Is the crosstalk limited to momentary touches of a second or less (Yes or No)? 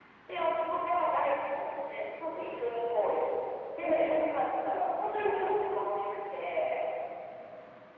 Yes